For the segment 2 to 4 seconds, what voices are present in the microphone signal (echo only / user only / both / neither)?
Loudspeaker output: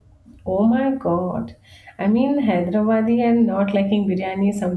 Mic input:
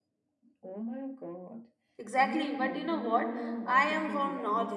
both